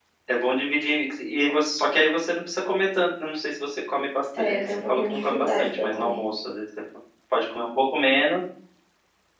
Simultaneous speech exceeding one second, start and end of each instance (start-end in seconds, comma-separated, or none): 4.4-6.2